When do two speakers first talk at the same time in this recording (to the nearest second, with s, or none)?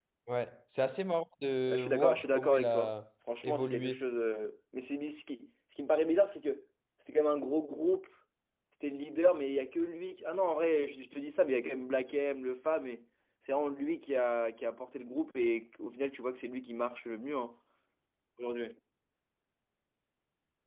2 s